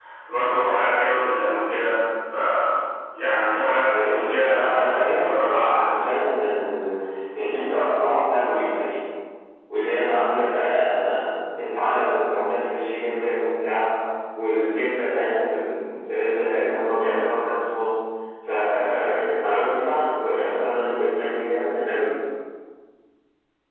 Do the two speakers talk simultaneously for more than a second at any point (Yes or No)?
Yes